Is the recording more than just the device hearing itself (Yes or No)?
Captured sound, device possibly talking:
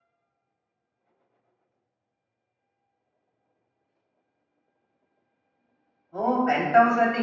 Yes